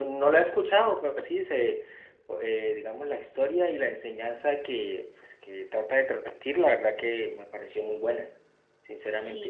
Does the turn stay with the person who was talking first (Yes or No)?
No